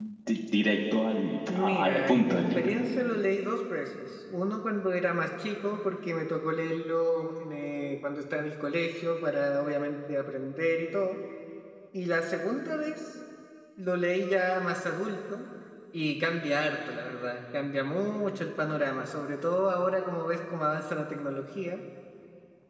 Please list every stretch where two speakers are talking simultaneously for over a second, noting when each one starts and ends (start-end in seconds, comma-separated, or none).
1.5-2.7